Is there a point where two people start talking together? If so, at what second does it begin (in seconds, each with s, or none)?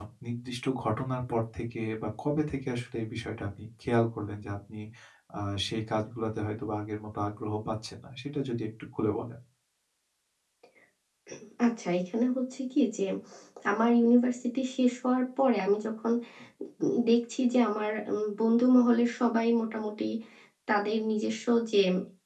none